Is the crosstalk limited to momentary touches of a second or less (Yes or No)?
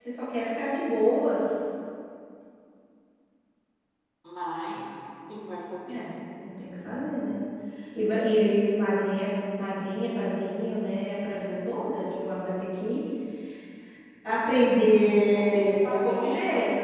No